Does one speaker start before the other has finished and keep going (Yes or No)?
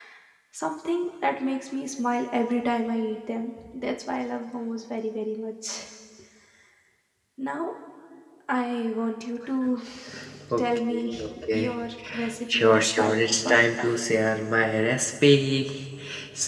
Yes